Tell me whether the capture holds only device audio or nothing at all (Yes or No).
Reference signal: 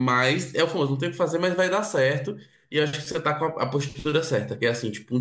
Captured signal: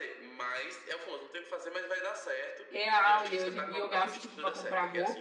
No